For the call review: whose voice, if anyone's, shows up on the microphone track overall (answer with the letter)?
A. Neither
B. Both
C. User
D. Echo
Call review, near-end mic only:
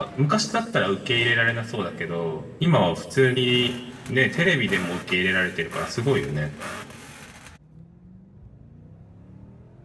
C